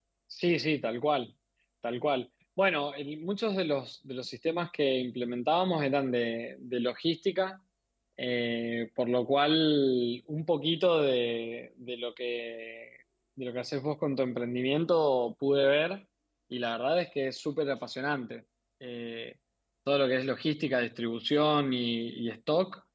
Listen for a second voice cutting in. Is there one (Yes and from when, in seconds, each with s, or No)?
No